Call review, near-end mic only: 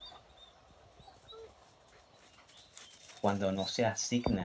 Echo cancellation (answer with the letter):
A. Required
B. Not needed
B